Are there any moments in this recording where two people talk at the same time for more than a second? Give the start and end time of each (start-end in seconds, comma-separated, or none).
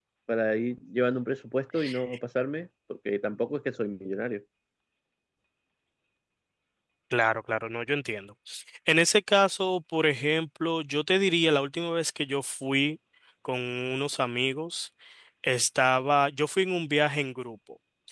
none